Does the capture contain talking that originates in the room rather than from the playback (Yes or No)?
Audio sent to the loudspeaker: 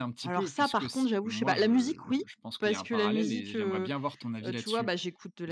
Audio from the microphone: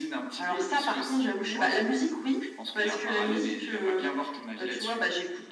No